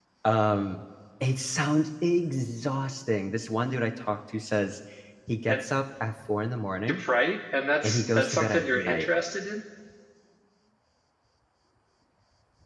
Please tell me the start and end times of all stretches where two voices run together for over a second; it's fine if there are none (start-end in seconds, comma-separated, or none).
7.8-9.1